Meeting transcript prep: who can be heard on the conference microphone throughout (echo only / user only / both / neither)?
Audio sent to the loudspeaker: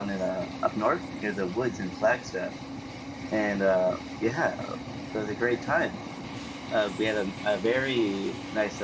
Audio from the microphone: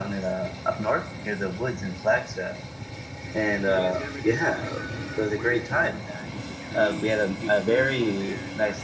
both